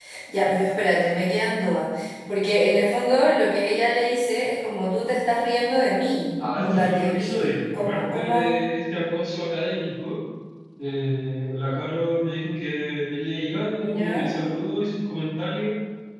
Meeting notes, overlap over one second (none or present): present